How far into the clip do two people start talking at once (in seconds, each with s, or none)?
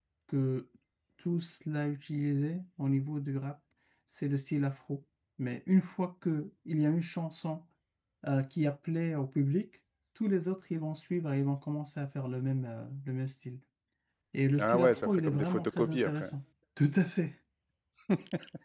14.6 s